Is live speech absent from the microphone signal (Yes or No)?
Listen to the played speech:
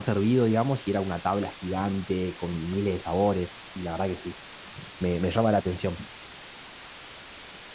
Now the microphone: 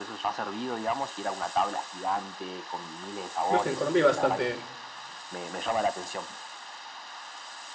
No